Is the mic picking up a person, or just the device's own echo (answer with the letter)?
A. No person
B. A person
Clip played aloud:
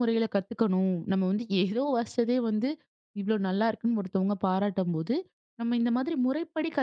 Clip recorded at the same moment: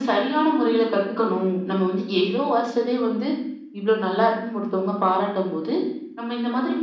A